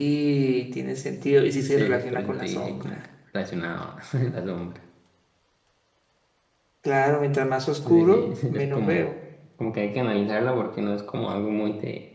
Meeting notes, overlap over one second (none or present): present